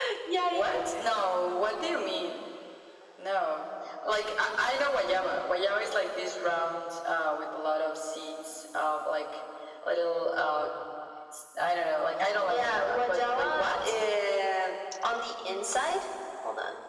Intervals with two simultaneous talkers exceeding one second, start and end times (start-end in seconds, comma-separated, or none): 12.4-13.9